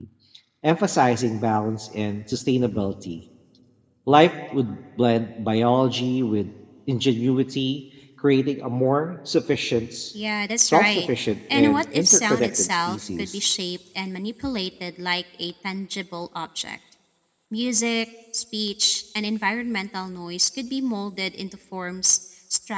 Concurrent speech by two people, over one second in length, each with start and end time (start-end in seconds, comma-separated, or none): 11.5-13.4